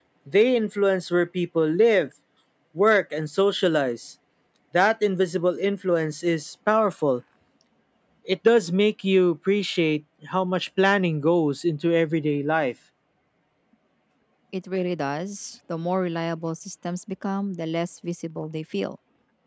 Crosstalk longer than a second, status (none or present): none